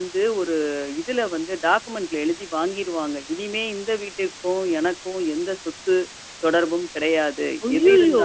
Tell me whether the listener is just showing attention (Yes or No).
Yes